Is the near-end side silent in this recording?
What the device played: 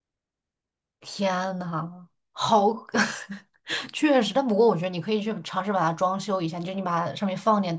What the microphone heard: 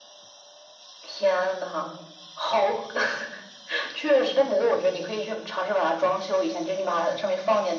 Yes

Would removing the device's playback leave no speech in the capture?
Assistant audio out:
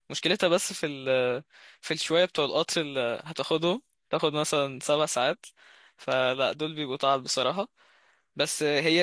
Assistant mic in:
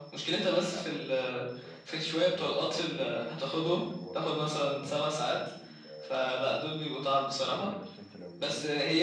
No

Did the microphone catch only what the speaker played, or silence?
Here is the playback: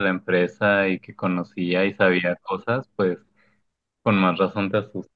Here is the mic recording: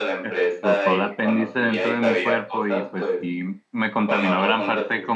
No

